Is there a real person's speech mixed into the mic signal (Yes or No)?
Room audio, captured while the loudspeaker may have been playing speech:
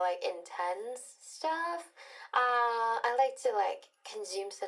No